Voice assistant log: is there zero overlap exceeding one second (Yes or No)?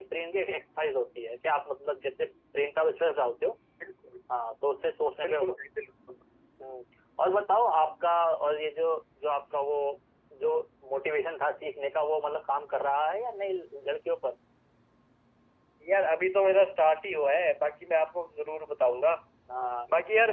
Yes